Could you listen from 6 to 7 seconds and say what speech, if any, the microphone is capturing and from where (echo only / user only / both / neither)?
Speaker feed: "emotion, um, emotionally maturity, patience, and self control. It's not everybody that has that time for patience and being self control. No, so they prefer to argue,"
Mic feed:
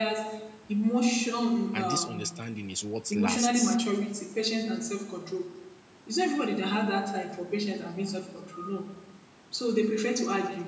echo only